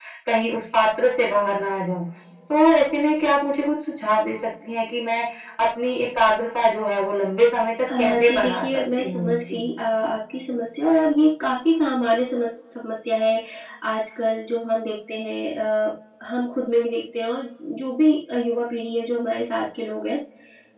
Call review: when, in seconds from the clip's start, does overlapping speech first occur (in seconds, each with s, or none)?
7.9 s